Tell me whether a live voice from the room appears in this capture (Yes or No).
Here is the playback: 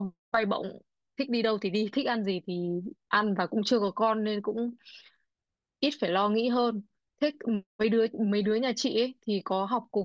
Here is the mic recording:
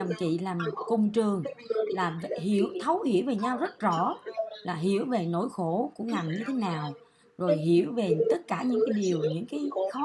Yes